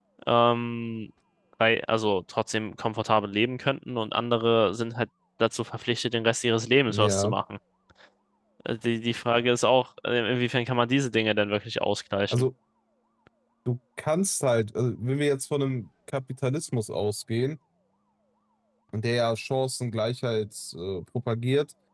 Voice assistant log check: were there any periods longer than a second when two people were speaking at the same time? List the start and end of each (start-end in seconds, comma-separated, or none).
none